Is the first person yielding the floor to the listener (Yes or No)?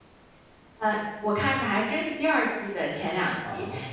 No